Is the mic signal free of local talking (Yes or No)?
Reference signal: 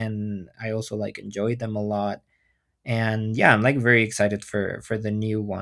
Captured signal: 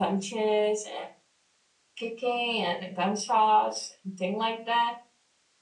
No